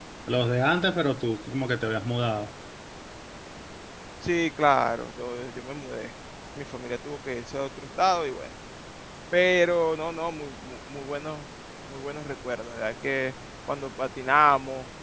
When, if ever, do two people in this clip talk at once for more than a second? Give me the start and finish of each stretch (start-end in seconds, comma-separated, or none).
none